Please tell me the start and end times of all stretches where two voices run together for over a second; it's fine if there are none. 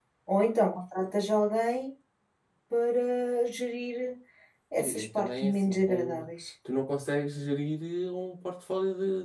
4.8-6.3

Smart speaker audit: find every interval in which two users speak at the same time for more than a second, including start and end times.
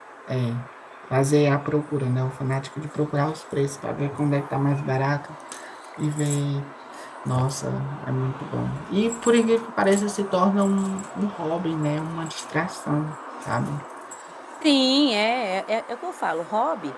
none

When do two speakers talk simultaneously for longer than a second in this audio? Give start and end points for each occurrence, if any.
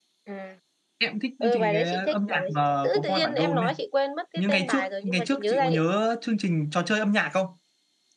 1.4-3.7, 4.4-5.8

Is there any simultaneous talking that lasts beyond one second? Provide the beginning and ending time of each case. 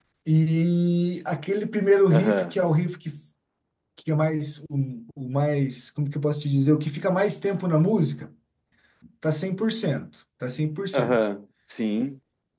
none

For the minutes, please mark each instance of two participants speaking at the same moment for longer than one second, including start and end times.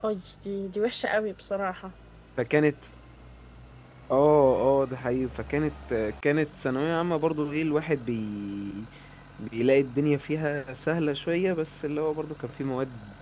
none

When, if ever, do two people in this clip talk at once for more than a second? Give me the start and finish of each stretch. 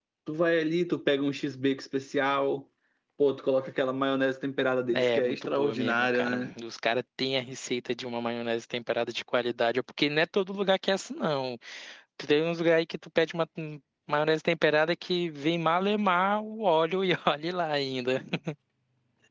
4.9-6.5

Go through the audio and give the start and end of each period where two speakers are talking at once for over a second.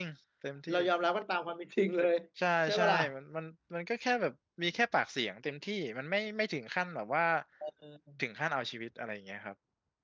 none

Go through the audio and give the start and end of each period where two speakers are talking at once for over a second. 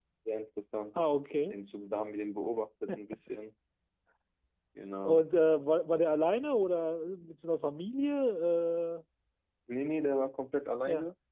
none

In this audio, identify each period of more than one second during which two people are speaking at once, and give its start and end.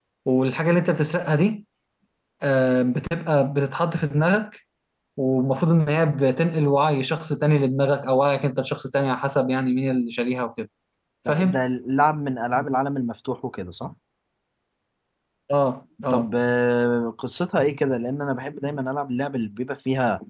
none

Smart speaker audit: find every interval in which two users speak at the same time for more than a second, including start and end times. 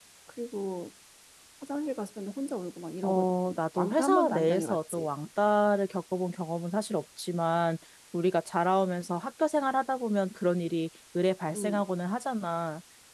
3.0-5.1

